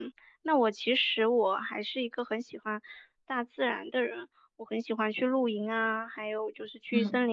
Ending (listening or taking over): listening